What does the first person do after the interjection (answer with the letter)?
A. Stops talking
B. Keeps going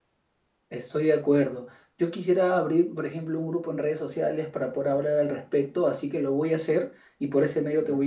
B